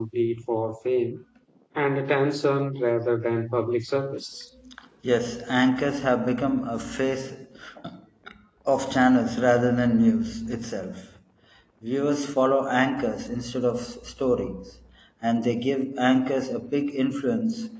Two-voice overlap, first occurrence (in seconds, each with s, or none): none